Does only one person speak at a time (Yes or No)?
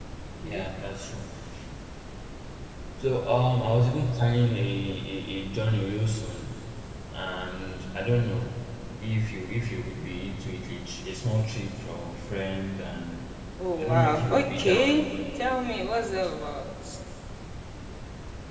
No